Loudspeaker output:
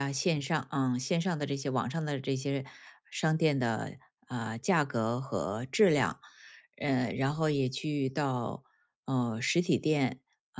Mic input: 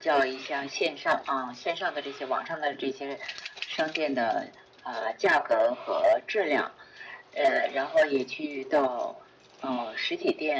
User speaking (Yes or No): No